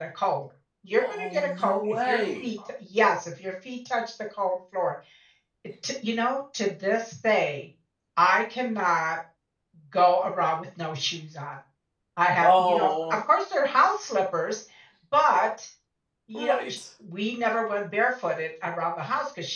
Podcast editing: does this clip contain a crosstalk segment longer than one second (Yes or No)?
Yes